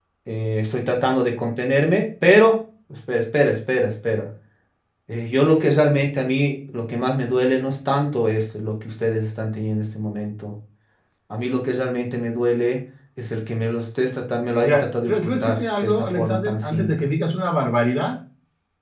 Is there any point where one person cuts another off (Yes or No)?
Yes